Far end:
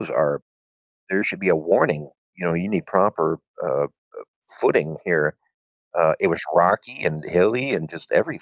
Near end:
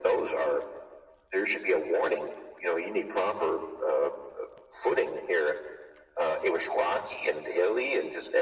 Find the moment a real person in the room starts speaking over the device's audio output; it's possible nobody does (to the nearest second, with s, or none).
none